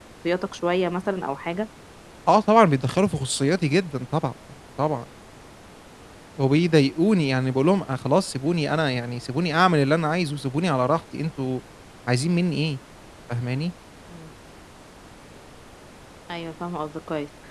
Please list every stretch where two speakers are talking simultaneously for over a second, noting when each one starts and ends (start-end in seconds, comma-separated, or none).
none